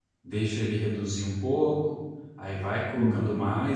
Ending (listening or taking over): listening